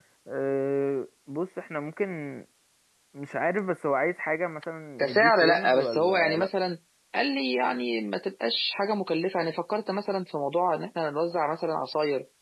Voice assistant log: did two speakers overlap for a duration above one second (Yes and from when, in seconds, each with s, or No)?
Yes, from 5.0 s